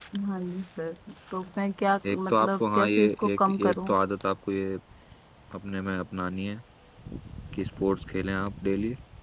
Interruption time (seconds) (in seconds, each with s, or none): 2.1 s